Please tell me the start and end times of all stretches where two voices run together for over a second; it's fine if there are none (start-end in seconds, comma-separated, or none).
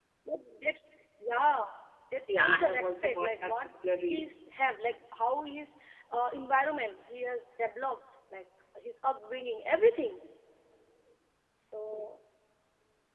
2.3-3.5